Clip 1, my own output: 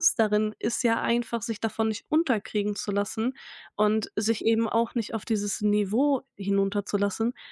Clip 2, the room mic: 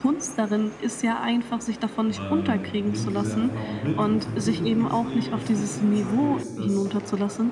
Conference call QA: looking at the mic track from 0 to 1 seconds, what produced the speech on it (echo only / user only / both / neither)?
echo only